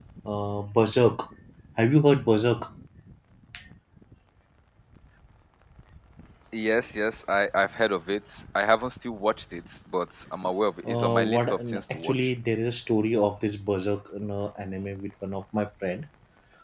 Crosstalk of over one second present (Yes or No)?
Yes